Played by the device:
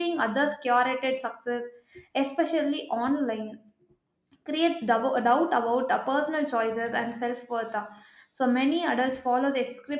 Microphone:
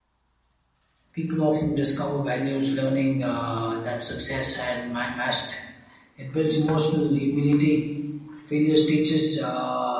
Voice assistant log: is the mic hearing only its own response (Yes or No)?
No